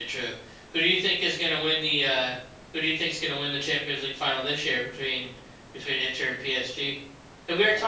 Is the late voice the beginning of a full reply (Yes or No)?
Yes